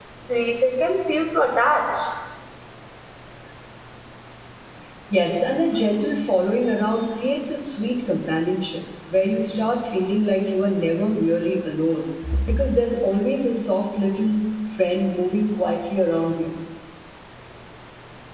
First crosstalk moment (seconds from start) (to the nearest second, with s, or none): none